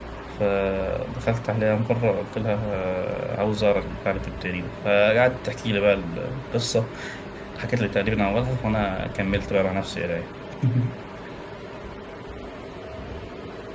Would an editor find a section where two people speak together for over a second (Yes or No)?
No